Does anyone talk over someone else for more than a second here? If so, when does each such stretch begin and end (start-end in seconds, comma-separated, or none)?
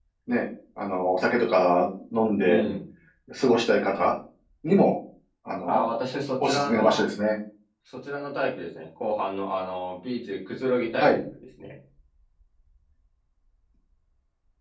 5.6-7.1